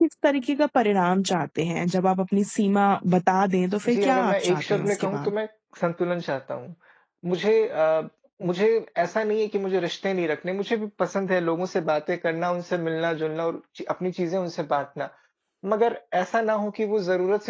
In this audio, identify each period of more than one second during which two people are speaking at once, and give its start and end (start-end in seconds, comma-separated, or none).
3.9-5.3